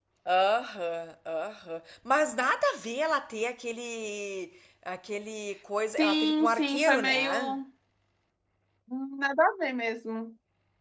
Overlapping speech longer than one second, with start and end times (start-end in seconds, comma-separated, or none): 6.0-7.3